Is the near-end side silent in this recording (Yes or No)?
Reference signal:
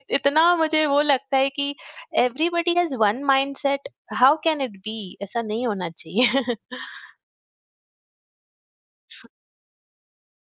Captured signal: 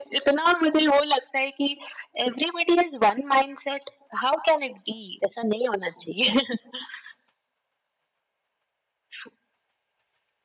Yes